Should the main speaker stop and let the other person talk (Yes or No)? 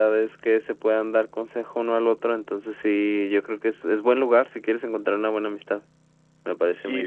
Yes